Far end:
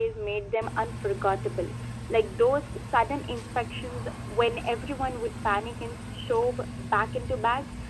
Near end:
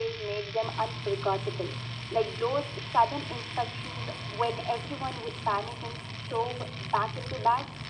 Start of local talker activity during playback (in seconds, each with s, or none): none